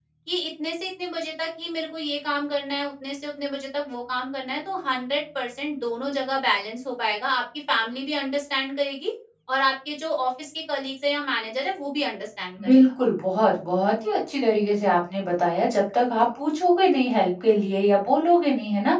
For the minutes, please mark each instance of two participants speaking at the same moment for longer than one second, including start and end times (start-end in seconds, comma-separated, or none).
none